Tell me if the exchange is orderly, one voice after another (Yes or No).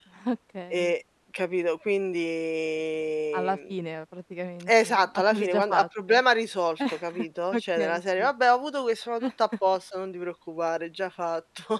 No